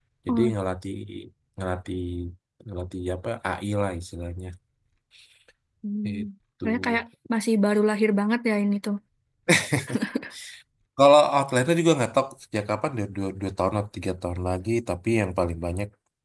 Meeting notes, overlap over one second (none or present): none